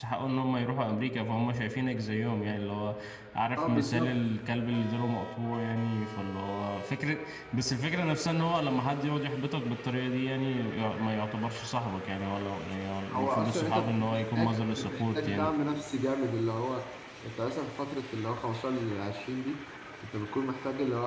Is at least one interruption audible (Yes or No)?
Yes